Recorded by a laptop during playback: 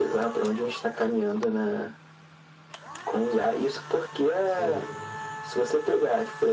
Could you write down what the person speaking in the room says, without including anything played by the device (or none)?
sei.